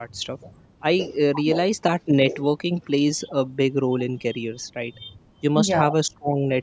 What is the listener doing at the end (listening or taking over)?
listening